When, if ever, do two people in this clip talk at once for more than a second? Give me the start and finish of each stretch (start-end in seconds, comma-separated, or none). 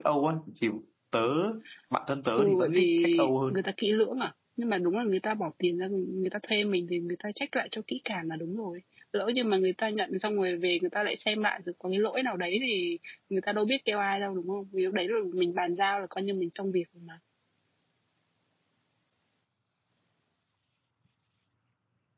2.4-3.6